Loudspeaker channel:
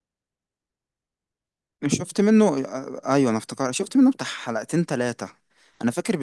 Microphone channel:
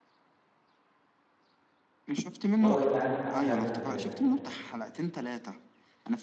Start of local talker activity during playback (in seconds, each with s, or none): 2.6 s